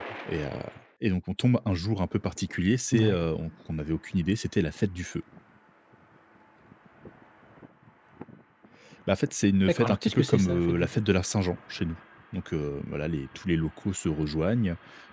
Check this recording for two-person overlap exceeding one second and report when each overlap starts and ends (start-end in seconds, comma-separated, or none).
9.7-11.0